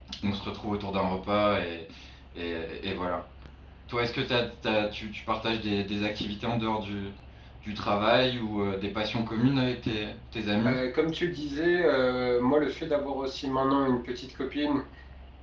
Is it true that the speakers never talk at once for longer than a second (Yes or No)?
Yes